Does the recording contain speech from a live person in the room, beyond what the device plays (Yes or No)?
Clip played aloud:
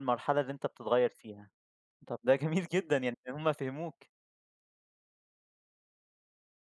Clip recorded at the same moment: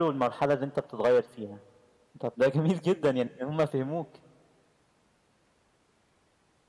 No